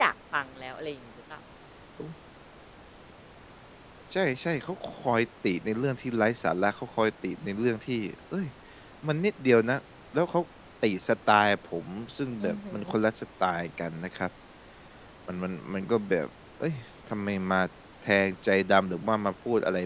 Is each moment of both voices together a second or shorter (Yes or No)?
Yes